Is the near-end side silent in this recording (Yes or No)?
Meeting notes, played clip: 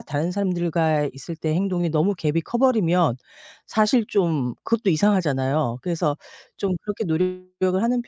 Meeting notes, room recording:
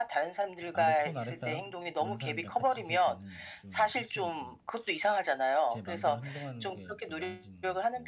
No